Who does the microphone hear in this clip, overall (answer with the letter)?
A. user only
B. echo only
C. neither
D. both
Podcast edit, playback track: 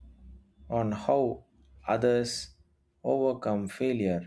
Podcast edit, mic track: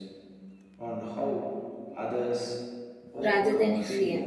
D